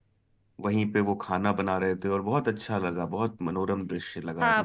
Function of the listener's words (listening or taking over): taking over